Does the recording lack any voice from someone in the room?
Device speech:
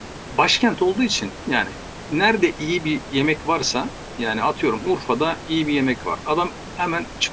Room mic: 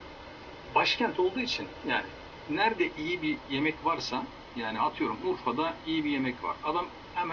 Yes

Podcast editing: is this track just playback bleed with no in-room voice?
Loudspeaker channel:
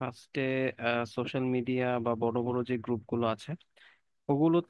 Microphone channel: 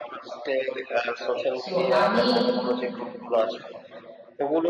No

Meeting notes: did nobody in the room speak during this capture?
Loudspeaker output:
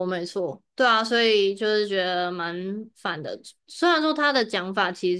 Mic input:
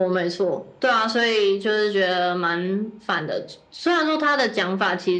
Yes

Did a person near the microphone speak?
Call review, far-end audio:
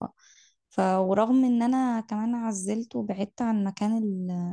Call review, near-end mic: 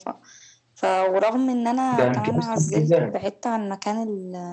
Yes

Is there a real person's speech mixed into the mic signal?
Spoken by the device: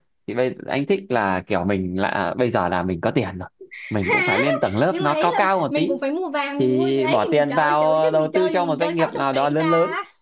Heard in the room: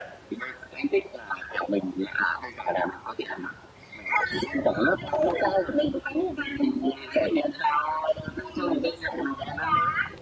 No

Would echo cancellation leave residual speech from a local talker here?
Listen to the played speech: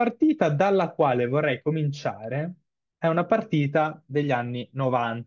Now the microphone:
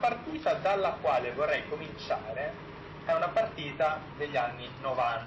No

